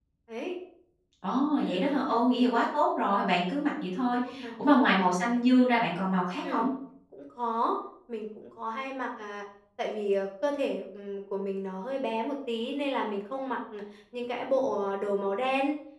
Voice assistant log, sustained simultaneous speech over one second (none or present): none